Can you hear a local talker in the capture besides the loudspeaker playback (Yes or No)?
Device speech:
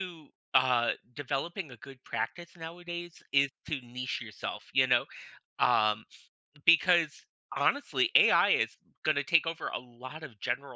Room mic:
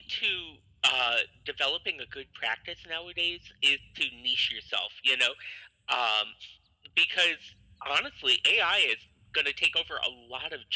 No